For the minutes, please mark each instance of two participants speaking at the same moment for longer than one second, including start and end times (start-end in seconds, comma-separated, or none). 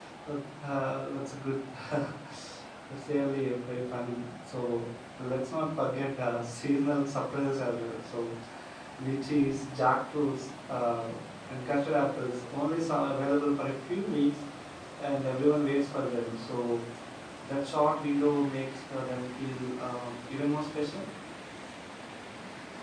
none